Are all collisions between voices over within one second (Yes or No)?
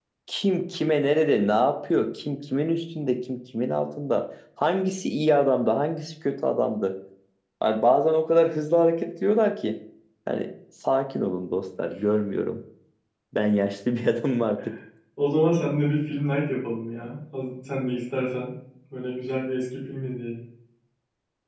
Yes